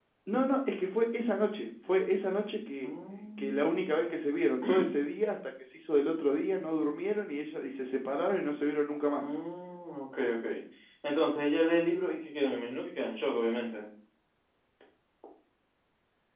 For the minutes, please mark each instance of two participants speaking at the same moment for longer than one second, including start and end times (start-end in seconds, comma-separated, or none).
none